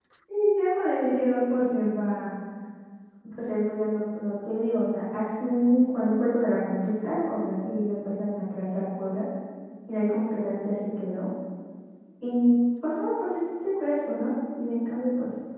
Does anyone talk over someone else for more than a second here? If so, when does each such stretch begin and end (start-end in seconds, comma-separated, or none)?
none